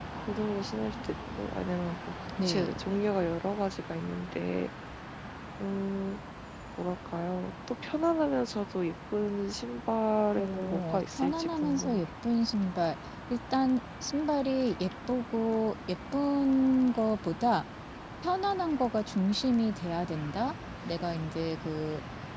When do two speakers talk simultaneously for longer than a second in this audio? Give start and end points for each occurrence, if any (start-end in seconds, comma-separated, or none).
10.4-12.1